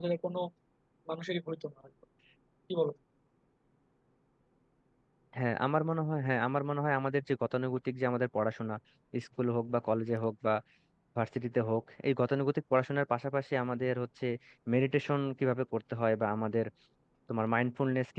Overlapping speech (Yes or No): No